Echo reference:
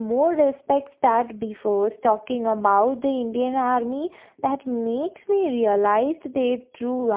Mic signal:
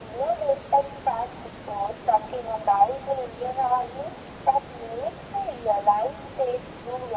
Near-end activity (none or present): none